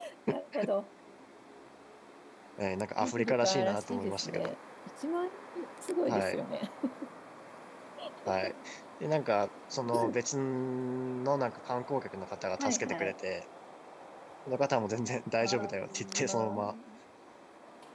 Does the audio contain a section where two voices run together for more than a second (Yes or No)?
Yes